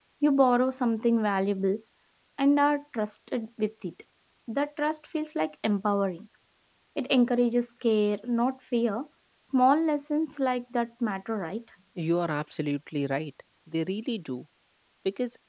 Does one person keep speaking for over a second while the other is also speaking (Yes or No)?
No